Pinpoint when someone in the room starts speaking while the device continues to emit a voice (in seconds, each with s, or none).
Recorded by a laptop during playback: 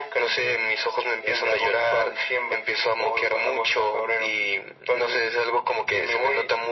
none